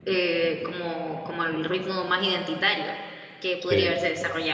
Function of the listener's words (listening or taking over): listening